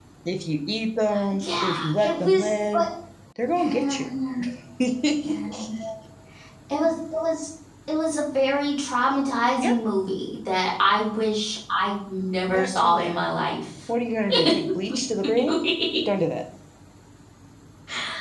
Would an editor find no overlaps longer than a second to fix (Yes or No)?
No